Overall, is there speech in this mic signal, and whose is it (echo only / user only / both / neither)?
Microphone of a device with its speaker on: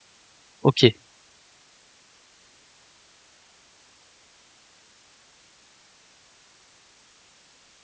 user only